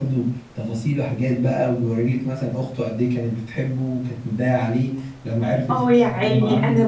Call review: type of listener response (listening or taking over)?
taking over